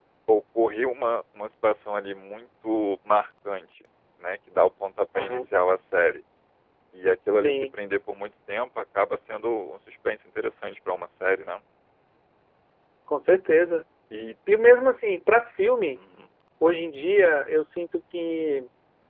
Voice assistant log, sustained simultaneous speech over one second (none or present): none